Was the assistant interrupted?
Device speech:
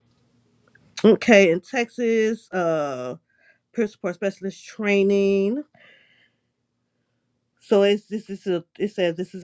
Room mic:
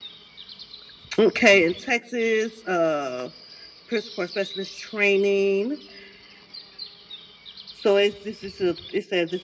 No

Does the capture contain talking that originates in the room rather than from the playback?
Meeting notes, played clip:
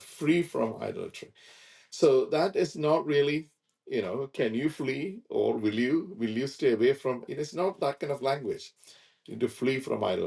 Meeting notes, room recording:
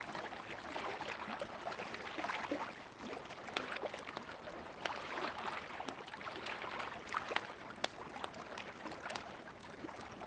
No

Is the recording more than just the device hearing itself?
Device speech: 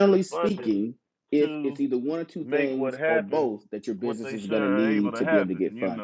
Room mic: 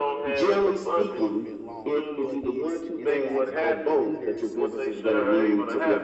Yes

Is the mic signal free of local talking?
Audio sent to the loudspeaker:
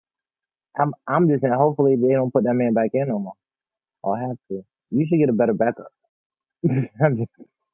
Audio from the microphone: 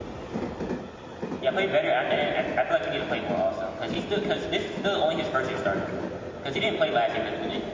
No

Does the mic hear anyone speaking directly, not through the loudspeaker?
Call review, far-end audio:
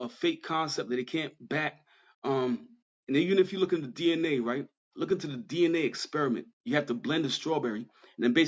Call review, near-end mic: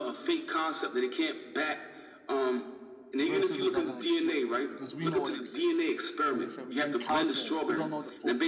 Yes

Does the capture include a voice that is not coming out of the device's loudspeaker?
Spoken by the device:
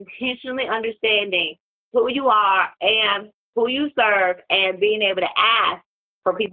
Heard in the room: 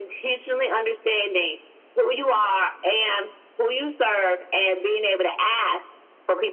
No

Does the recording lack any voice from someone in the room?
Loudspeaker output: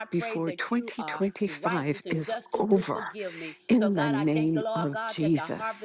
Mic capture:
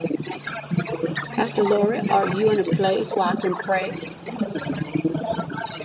No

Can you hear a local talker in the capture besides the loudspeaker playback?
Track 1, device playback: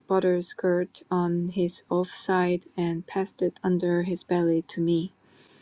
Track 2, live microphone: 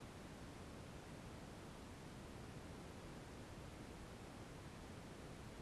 No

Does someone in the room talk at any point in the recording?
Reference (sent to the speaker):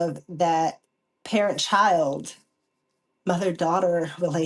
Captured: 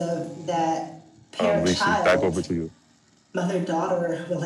Yes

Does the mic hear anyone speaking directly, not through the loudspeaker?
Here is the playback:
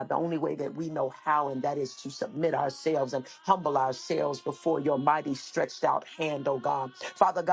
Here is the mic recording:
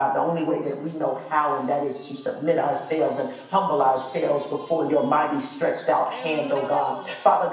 Yes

